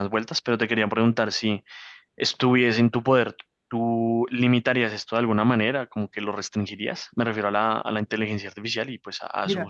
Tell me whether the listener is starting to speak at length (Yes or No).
Yes